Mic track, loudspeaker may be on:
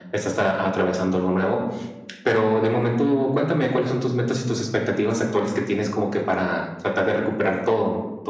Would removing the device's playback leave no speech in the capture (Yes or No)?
Yes